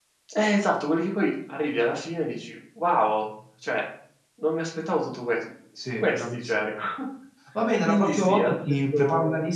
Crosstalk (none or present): present